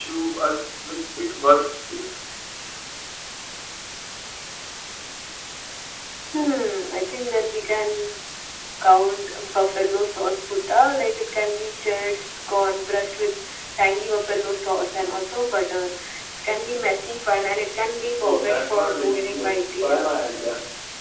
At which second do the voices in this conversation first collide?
18.2 s

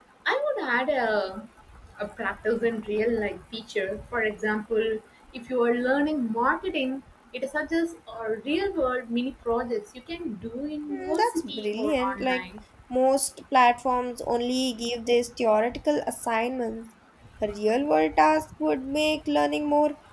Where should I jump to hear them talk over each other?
10.9 s

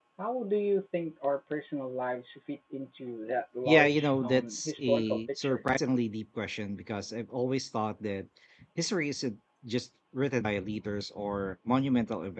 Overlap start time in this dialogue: 3.6 s

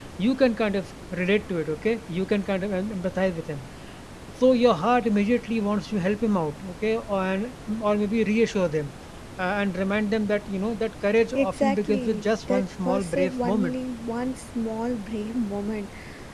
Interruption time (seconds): 11.3 s

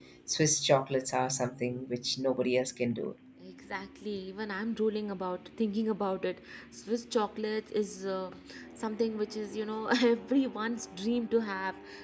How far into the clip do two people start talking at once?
none

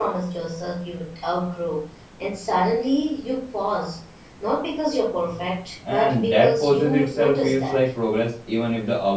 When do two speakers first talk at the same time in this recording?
5.8 s

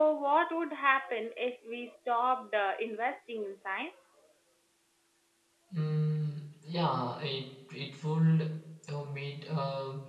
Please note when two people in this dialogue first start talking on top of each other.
none

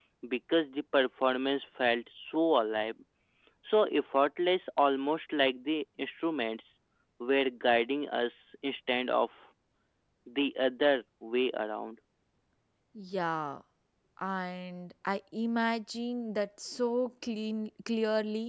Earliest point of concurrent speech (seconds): none

